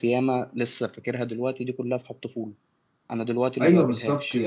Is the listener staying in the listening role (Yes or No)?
No